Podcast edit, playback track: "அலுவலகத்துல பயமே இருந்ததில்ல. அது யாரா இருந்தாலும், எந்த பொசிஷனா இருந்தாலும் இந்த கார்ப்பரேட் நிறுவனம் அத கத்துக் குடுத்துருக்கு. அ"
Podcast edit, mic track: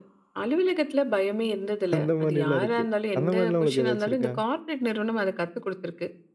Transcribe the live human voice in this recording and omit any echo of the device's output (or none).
அந்த மாரிலாம் இருக்கு. அந்த மாரிலாம் உங்களுக்கு ஏதாச்சும் இருக்கா?